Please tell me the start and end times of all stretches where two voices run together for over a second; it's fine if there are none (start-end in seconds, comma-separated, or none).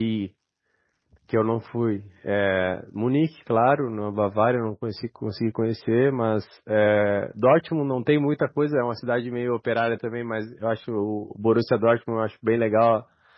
none